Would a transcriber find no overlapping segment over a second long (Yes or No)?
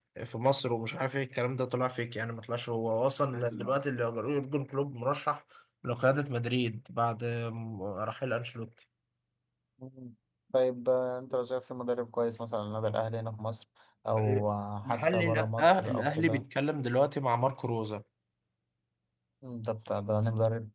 No